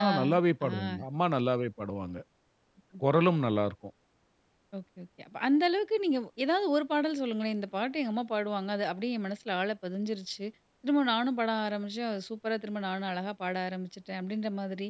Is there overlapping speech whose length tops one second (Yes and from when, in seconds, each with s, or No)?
No